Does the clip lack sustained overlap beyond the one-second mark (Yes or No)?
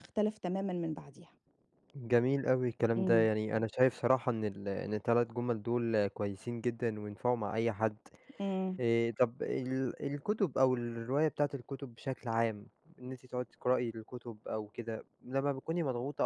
Yes